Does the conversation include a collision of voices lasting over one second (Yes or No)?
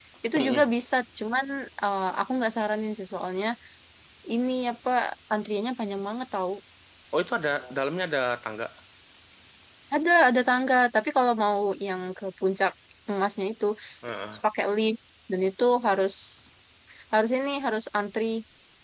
No